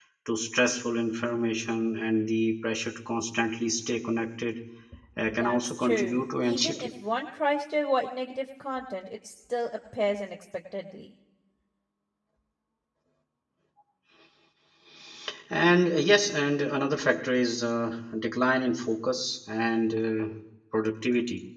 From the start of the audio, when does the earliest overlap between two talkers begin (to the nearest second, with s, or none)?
5 s